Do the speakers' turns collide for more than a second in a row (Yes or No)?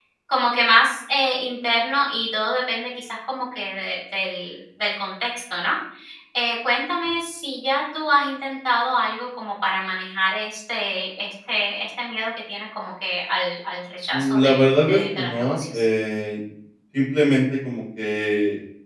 Yes